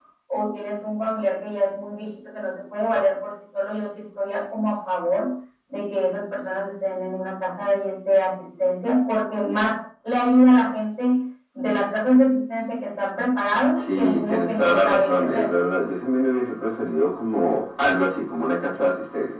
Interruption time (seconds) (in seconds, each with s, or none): 13.8 s